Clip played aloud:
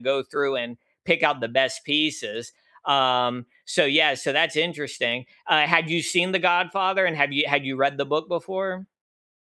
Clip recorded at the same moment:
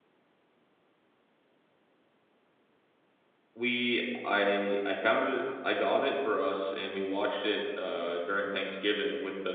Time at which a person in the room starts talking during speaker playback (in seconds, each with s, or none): 3.5 s